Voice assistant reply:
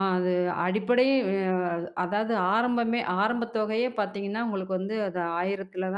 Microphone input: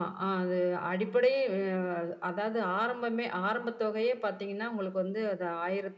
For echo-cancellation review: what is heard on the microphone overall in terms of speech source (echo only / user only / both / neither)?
echo only